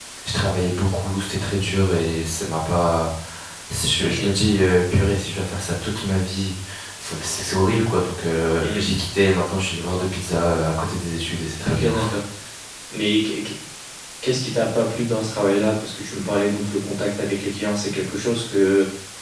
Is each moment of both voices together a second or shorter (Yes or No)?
Yes